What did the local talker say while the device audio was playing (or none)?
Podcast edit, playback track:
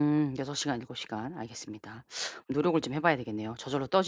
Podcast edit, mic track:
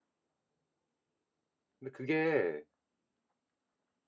근데 그게